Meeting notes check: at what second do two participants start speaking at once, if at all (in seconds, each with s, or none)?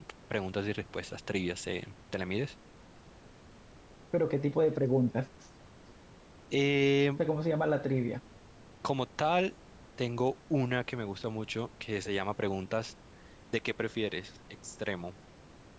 none